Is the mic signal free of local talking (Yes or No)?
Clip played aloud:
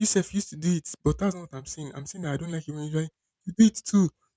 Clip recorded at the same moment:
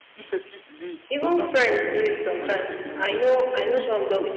No